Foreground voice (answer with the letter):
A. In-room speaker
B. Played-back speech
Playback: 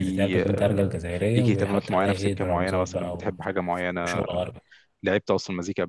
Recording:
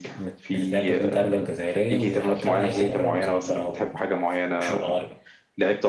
B